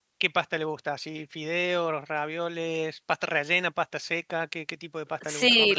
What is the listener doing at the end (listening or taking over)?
taking over